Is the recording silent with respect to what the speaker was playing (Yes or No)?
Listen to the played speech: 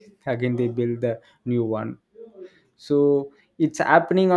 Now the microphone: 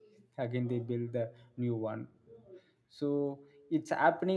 No